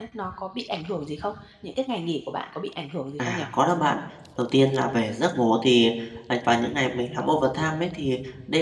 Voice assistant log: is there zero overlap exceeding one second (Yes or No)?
Yes